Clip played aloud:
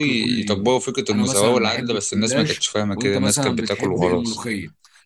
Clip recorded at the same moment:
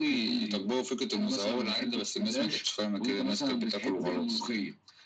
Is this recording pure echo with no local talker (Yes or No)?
Yes